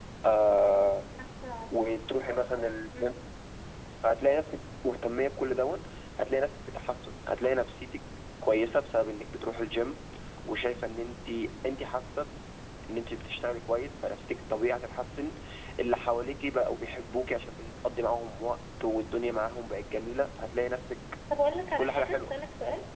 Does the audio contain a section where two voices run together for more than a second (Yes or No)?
No